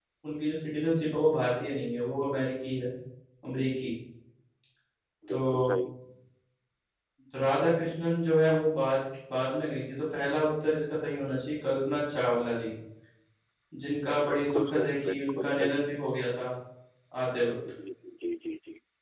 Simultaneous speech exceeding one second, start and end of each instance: 14.3-15.8

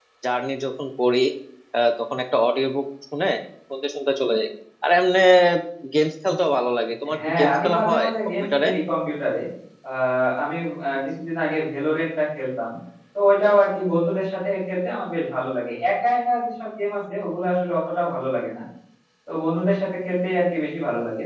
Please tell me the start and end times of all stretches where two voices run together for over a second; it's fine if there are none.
7.3-8.7

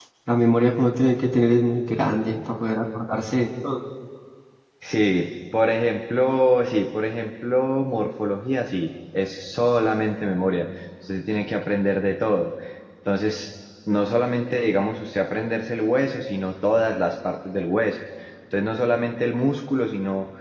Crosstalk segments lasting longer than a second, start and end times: none

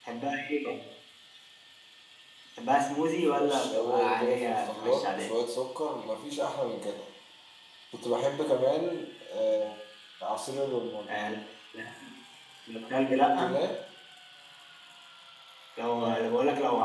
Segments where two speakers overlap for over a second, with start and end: 3.2-5.3

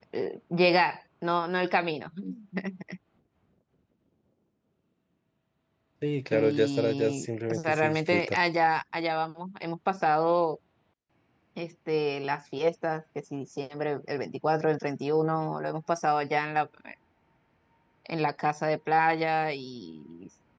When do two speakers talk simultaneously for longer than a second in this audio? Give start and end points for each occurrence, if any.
6.3-8.3

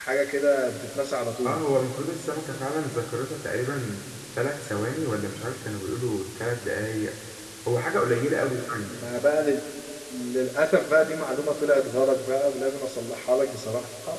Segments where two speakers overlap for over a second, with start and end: none

